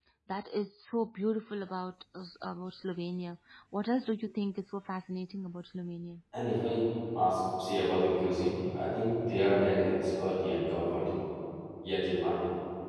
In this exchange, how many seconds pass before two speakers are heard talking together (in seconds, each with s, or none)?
none